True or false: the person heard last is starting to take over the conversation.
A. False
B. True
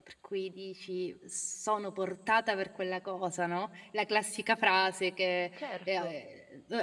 A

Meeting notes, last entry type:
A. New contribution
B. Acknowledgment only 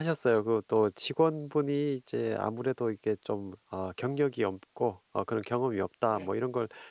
B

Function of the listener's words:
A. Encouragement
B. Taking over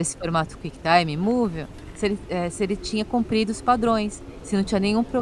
A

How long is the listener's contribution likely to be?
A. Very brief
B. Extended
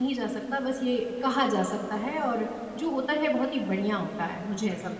B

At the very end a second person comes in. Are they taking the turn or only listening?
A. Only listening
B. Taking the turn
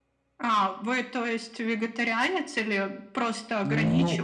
B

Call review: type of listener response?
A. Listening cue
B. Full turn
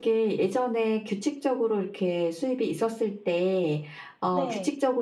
A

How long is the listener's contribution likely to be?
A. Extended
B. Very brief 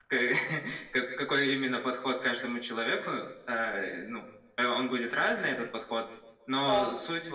B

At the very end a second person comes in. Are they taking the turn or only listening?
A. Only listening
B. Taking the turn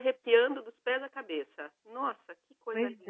B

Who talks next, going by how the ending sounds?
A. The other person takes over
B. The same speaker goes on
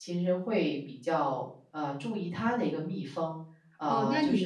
A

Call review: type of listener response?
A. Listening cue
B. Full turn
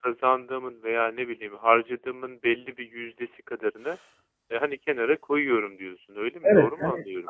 B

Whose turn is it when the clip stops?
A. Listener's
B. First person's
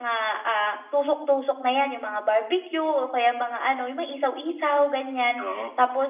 B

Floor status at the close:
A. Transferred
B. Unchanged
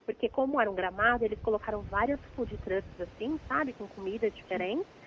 B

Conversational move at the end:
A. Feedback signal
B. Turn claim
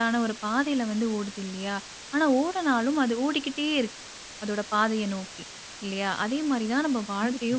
A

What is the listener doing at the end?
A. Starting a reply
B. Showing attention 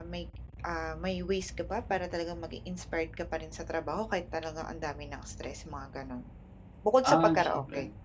A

